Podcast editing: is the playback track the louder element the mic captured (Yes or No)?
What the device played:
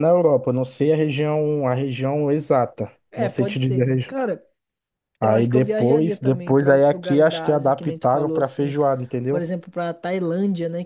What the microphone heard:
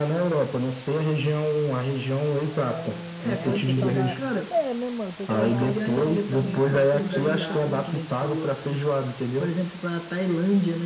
Yes